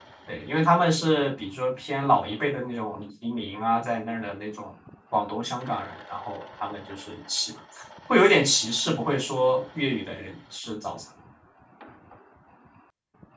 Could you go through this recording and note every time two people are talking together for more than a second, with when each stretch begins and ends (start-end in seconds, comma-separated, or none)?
none